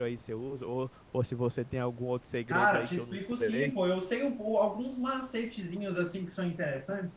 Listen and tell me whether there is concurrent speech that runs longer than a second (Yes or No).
Yes